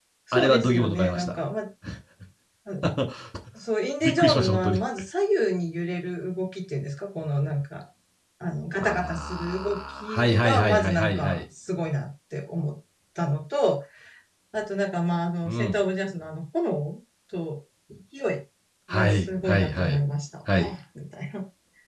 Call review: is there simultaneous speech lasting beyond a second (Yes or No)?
Yes